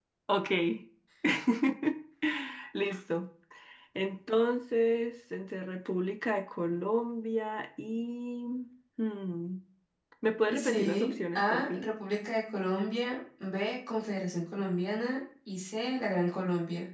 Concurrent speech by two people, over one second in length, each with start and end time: 10.5-11.8

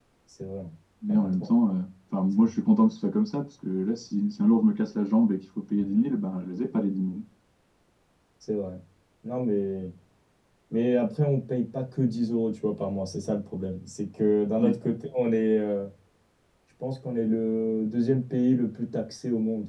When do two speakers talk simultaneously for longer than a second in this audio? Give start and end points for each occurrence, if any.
none

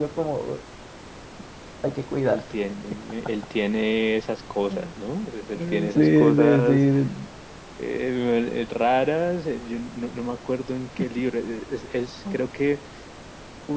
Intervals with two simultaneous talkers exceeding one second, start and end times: 5.6-6.8

